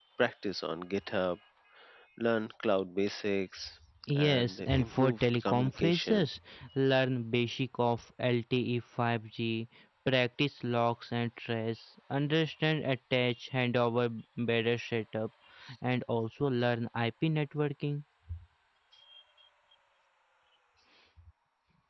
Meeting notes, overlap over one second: present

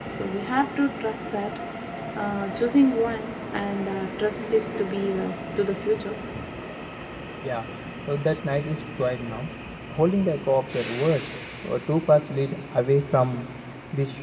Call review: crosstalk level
none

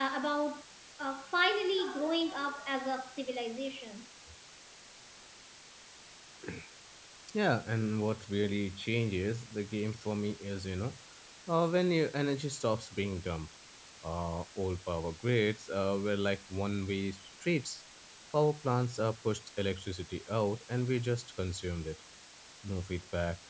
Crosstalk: none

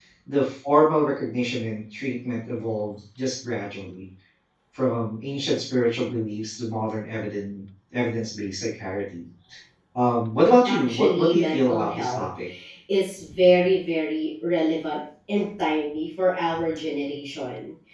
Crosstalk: present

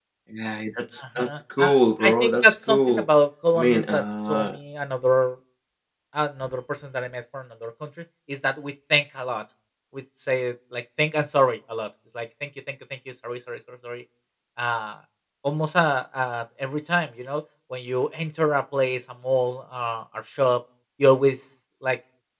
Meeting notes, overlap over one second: present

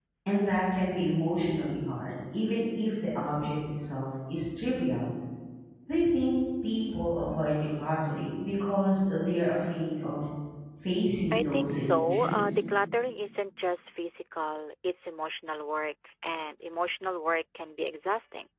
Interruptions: present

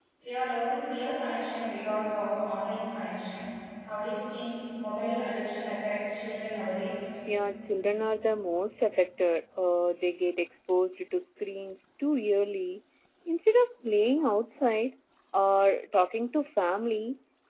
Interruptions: none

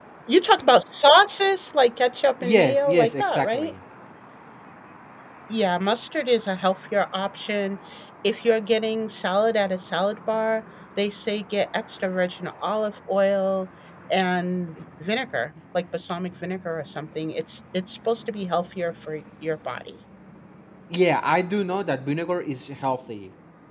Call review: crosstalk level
present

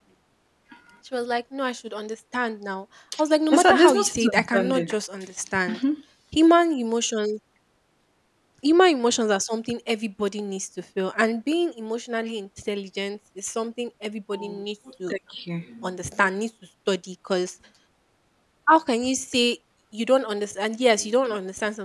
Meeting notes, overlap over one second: present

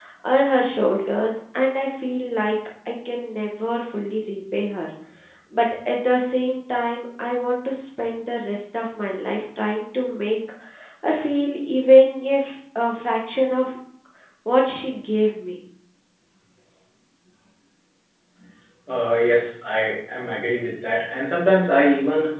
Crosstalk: none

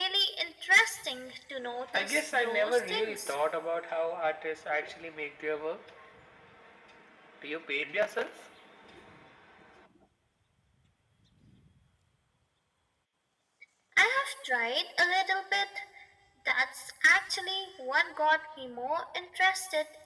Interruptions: present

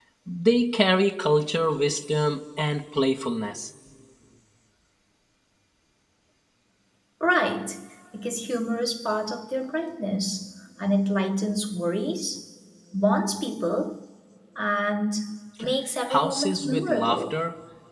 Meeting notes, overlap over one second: present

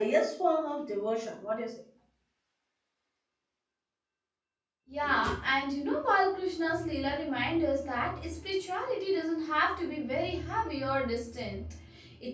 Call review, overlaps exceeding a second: none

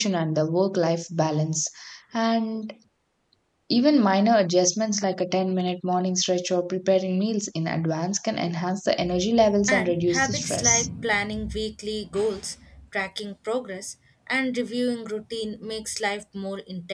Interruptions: present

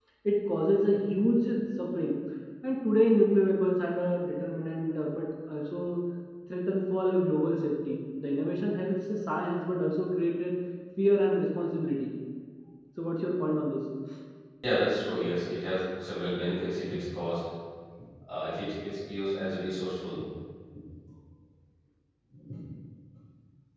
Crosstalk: none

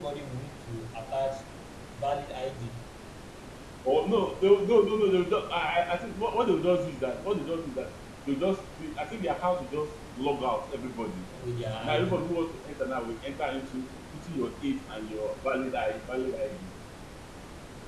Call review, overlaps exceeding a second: none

